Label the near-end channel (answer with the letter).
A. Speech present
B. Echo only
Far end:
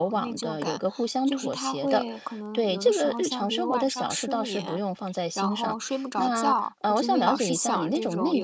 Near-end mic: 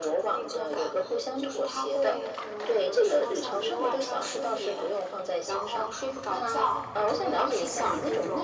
B